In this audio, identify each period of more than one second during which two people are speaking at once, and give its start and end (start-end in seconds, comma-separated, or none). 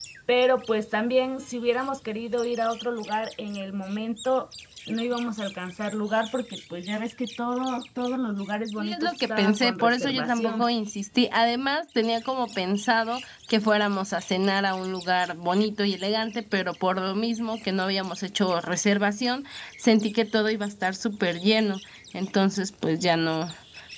8.8-10.7